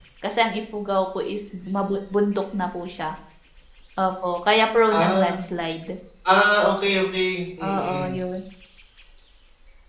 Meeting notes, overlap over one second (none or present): none